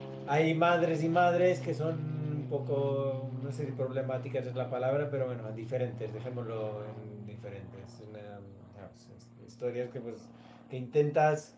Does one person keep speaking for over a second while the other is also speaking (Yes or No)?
No